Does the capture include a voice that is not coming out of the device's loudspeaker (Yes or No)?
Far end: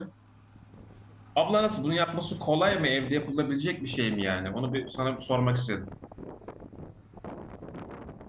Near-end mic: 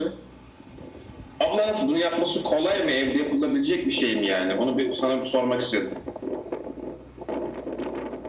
No